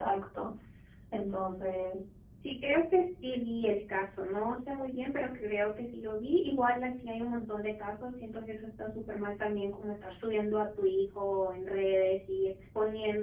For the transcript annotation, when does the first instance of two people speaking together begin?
none

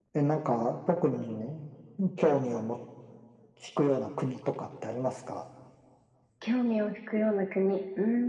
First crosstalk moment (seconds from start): none

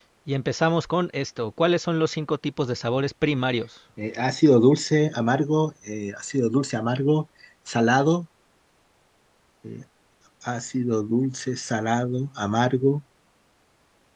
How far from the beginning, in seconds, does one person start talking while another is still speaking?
none

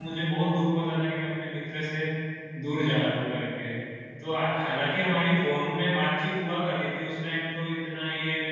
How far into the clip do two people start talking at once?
none

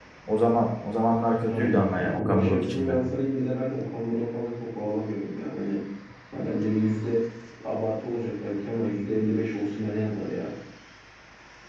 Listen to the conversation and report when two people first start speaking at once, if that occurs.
1.5 s

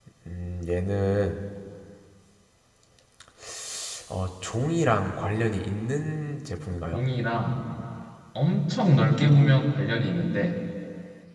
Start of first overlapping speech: none

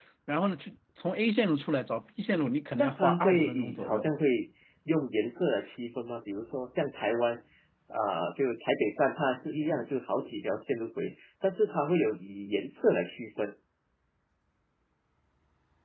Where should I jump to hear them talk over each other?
2.8 s

